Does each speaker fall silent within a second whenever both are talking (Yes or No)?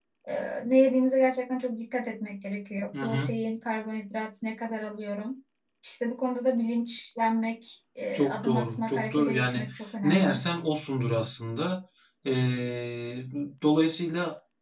No